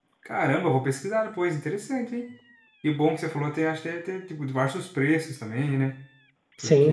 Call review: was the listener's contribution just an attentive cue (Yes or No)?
No